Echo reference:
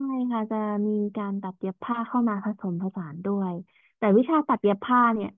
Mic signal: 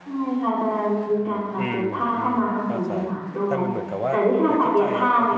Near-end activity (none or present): present